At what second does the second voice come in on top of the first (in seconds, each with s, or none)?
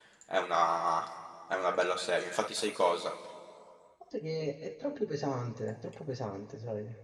none